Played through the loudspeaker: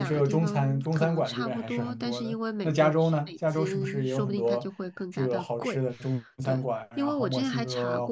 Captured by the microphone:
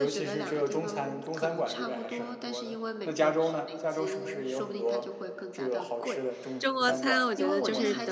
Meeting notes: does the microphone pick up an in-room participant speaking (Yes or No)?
Yes